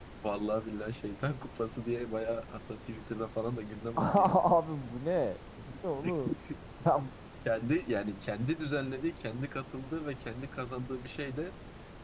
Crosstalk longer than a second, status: none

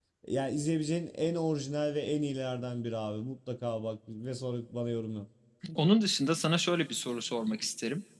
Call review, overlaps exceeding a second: none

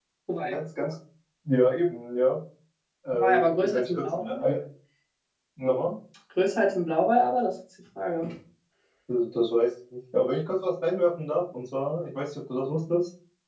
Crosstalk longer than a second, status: present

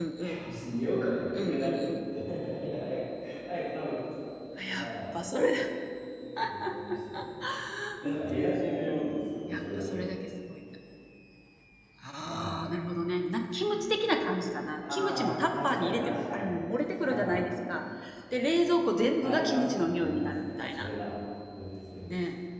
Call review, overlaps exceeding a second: present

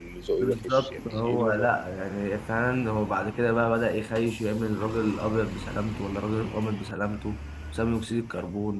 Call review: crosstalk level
present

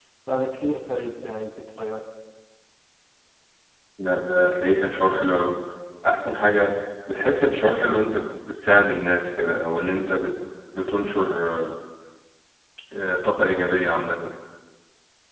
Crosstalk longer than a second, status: none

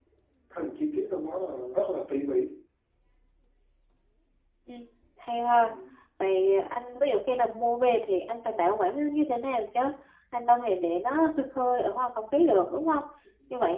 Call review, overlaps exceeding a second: none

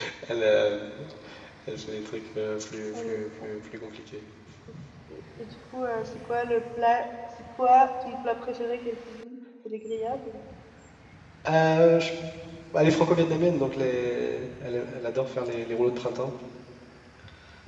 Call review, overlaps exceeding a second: none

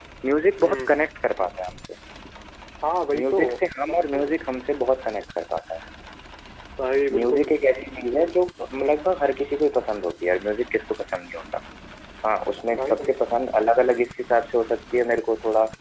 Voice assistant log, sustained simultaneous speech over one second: none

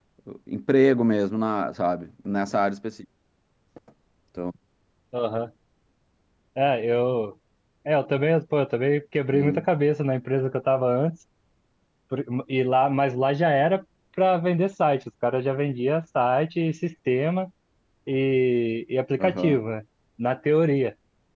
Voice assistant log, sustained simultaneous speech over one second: none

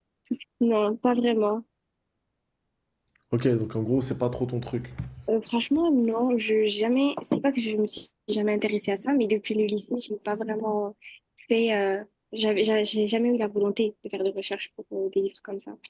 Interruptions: none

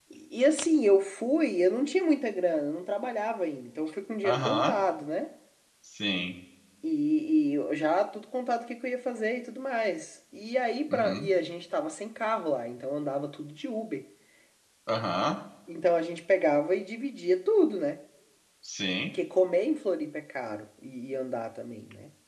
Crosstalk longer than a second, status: none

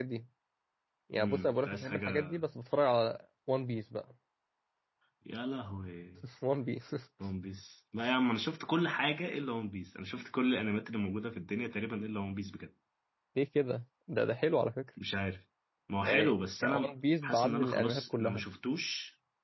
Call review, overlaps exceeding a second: present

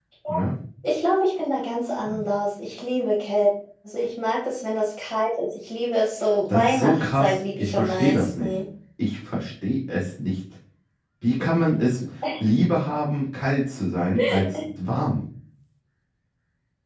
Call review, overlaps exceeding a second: present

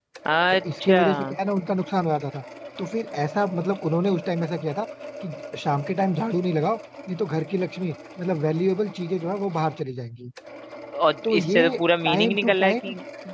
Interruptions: present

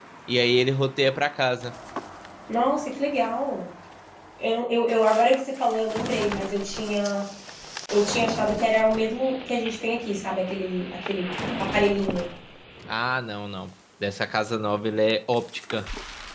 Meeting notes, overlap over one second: none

